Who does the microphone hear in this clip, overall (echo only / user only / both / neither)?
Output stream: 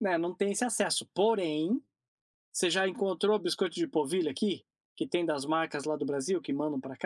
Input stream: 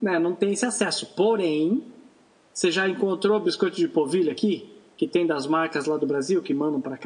echo only